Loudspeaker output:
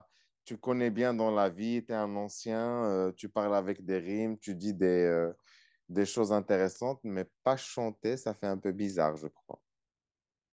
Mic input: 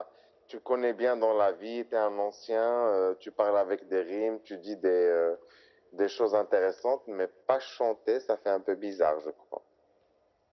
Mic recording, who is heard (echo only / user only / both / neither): echo only